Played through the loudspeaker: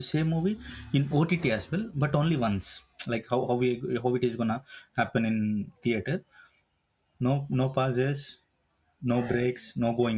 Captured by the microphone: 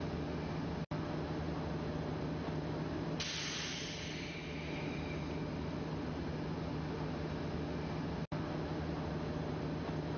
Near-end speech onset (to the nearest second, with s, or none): none